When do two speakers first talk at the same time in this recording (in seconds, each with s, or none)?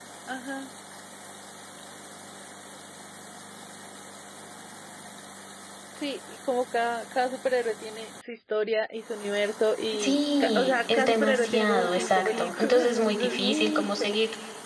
9.9 s